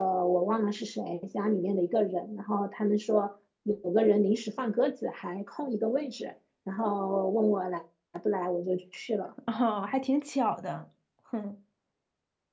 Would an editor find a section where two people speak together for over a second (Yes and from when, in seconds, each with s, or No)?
No